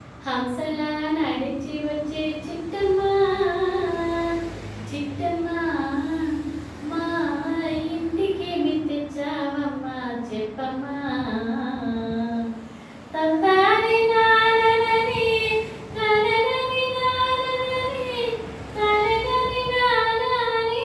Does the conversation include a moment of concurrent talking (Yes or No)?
No